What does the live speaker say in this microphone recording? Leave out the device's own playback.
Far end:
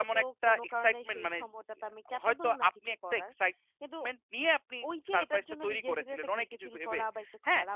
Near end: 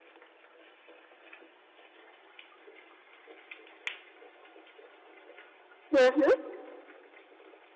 হুম, হুম।

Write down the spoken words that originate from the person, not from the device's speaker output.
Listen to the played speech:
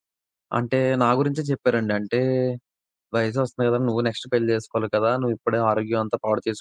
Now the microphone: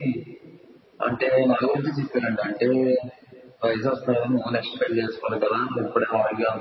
none

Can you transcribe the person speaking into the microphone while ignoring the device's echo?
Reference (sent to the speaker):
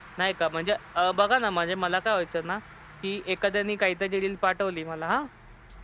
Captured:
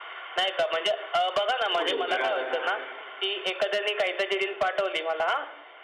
कोडिंग करा.

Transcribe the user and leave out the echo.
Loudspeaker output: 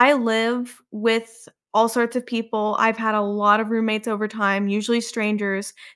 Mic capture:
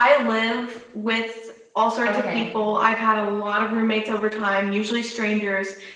Okay.

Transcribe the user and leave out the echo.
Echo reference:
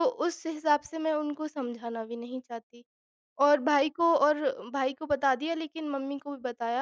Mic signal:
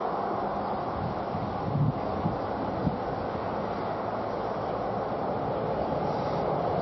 none

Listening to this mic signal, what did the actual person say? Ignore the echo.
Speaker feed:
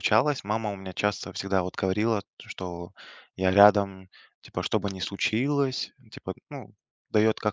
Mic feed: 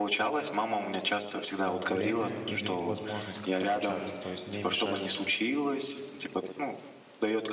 а, время или возможность как-то обучаться, то есть не мешать

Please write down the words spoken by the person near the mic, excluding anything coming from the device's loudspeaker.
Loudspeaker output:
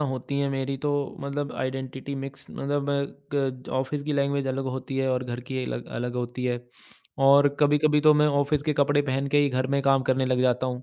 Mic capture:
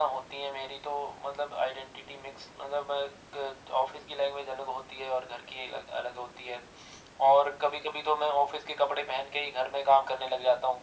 none

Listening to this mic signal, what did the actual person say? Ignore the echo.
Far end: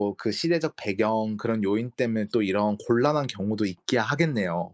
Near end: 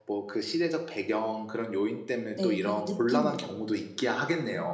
네. 그냥 느낌으로.

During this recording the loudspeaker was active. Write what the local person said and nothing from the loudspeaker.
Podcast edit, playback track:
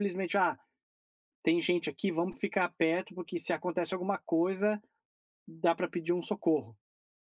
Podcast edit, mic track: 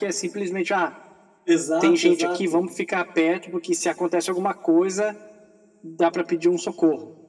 Exato, exato.

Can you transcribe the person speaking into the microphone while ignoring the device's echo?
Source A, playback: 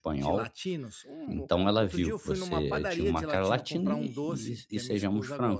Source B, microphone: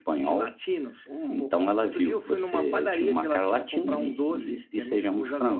none

